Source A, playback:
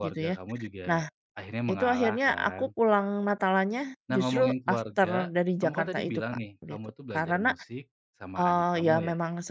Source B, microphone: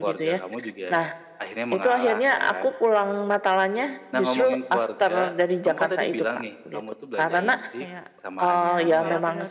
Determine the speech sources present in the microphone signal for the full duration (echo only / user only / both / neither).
both